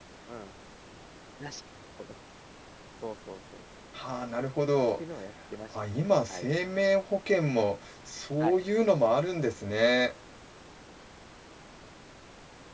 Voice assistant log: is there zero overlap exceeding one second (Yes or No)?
Yes